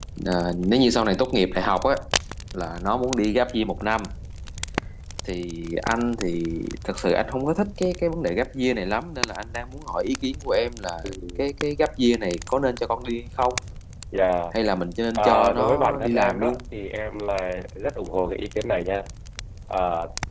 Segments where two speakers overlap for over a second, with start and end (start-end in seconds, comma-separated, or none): 15.2-16.6